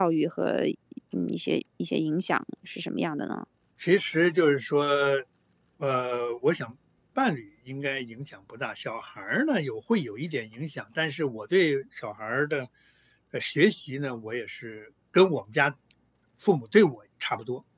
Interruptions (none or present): none